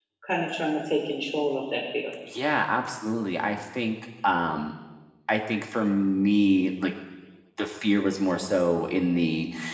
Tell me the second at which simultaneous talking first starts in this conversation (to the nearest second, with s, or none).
none